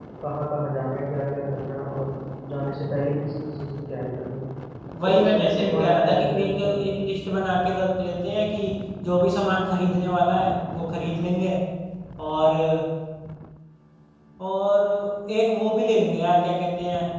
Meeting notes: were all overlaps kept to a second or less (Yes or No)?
No